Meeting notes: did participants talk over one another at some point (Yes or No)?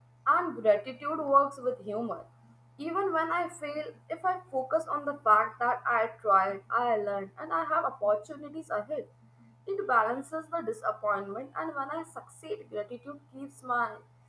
No